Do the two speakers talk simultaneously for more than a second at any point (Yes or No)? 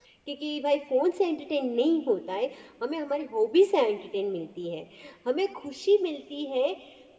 No